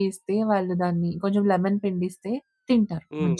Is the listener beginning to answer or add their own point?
Yes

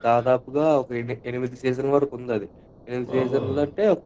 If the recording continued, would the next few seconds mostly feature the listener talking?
No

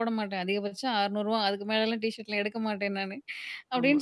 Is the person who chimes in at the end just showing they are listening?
Yes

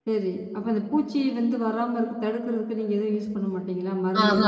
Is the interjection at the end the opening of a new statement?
Yes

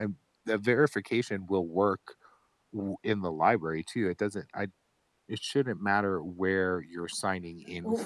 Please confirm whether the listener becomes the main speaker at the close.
Yes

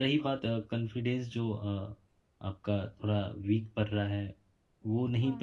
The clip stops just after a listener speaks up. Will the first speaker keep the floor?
Yes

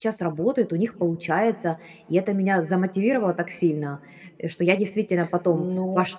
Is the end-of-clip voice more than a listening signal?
Yes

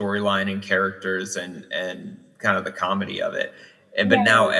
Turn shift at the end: No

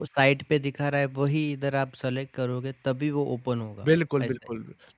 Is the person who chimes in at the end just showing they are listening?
No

